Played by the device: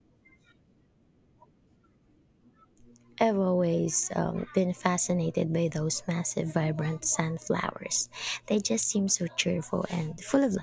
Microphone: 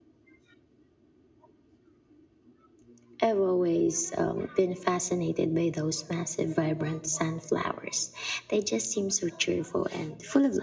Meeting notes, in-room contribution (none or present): none